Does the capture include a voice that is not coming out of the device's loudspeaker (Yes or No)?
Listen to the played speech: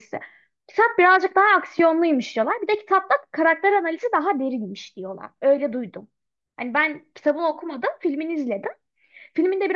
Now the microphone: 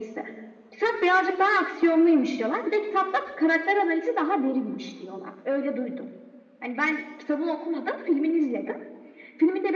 No